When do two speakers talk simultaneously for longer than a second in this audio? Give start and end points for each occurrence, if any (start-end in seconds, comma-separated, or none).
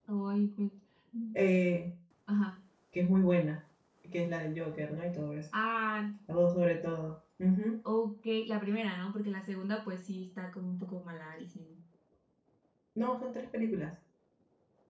none